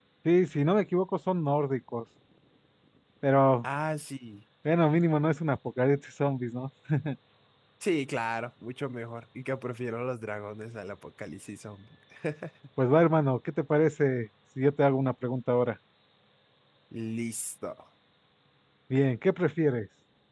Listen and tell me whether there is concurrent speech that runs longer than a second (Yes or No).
No